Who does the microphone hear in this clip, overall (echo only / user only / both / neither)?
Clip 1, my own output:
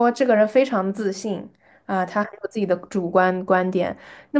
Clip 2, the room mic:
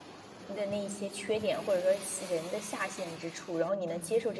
user only